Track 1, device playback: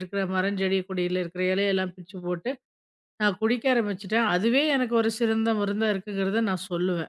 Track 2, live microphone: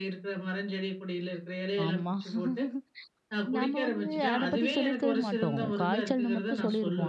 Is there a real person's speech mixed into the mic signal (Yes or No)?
Yes